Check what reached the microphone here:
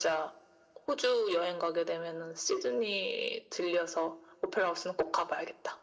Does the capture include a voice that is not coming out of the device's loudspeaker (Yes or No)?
No